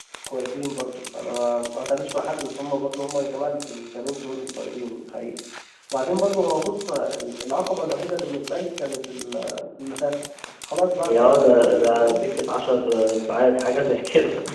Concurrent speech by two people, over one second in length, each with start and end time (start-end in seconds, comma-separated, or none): 11.0-12.3